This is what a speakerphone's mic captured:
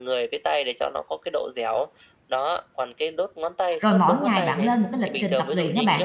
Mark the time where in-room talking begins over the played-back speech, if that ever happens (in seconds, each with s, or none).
3.8 s